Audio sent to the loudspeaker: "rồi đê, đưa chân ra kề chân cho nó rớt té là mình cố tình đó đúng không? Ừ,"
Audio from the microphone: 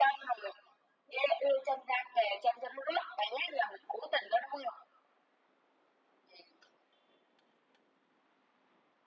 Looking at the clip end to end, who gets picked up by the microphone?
echo only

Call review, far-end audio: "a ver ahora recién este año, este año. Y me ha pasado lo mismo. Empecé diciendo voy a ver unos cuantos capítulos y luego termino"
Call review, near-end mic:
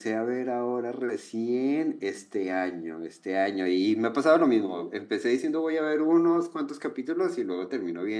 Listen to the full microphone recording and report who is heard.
echo only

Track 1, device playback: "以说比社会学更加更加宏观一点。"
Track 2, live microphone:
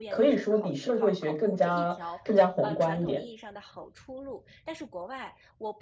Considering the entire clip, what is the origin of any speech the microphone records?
both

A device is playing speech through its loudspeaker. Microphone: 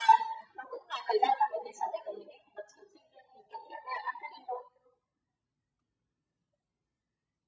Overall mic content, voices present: echo only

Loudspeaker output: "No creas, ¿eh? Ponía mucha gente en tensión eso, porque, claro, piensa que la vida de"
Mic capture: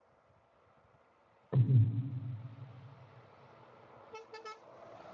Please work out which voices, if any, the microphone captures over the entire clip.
user only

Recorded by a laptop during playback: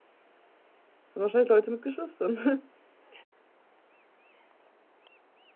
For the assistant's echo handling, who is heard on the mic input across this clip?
user only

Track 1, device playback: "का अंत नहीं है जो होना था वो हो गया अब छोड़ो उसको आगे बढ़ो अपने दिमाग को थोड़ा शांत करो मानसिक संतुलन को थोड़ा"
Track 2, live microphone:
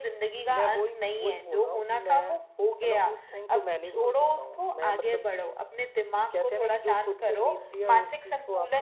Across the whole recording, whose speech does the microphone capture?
both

